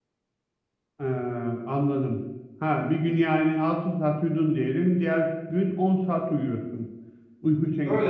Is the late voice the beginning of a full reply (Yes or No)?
Yes